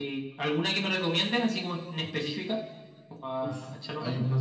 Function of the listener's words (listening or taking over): taking over